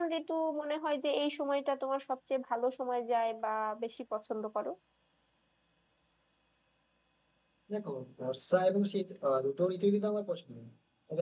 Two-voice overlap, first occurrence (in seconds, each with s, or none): none